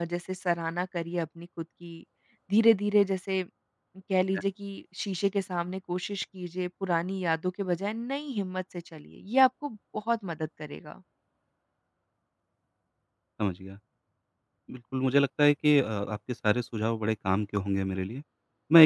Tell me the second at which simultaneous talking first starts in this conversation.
none

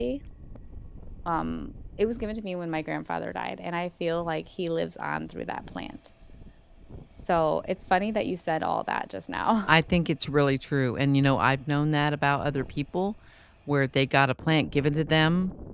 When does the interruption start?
none

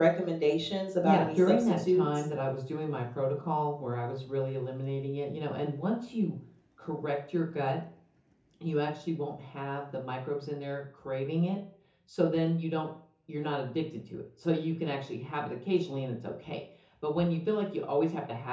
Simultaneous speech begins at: 1 s

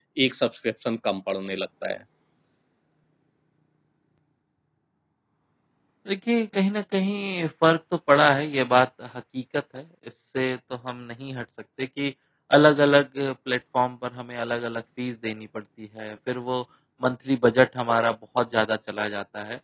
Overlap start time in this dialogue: none

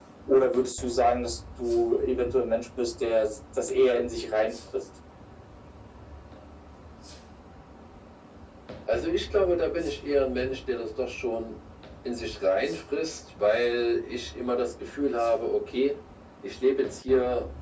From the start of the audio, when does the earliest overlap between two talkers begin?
none

